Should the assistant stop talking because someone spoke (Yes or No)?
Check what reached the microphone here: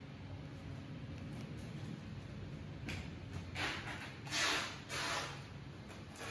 No